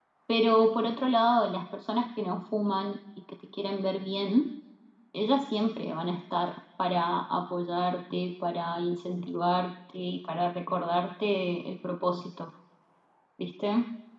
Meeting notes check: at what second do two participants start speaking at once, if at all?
none

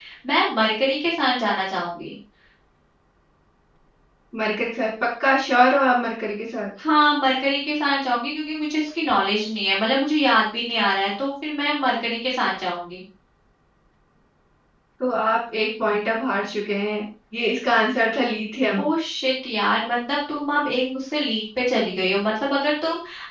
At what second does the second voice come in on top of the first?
none

